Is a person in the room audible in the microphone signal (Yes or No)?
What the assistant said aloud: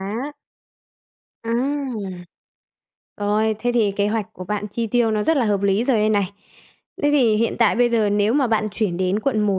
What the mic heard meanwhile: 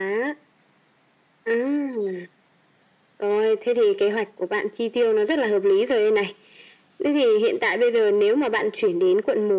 No